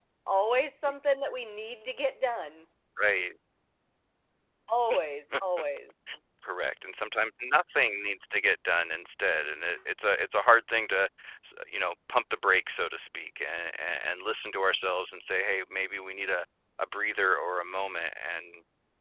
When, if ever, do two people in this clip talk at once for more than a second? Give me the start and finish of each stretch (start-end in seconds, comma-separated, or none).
none